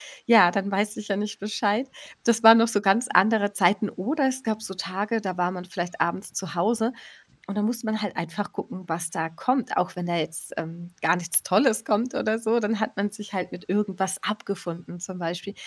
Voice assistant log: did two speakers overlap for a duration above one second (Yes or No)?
No